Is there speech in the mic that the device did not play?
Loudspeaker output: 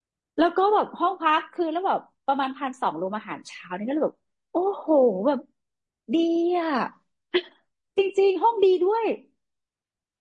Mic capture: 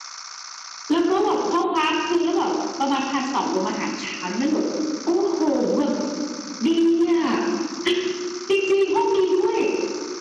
No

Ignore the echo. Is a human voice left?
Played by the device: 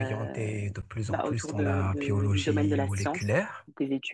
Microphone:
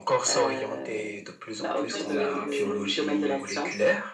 Yes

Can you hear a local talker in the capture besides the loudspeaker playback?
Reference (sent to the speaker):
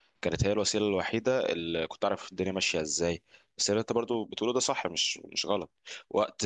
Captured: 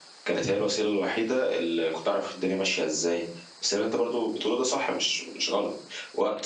No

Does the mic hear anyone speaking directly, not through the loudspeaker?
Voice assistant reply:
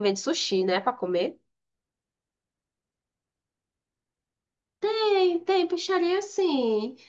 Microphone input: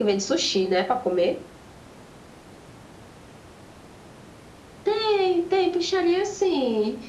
No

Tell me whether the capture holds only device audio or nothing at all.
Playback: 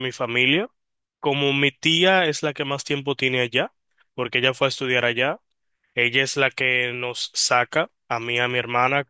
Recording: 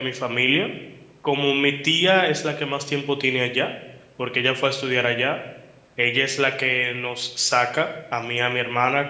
Yes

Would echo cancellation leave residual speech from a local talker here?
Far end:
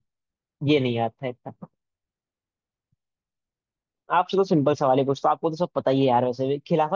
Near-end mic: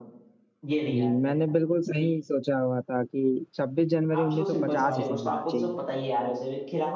Yes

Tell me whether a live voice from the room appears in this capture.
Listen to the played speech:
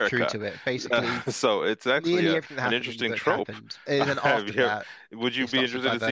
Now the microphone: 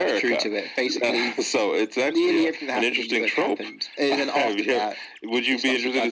No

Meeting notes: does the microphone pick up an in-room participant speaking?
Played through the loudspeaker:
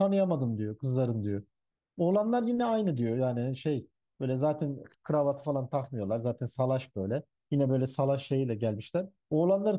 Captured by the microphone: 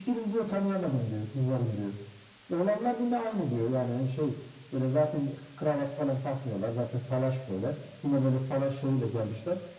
No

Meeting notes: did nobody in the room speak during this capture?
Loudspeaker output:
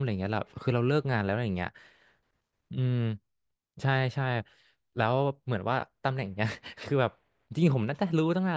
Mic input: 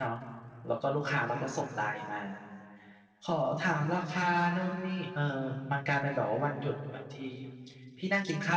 No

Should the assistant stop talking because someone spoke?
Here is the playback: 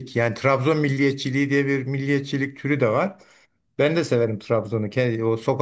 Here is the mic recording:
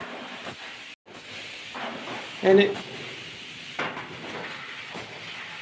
Yes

